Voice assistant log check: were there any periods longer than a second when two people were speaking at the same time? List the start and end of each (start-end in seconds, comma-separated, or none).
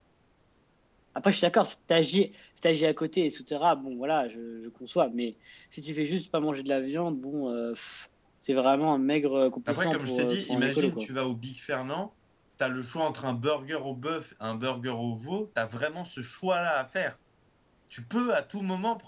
9.7-11.1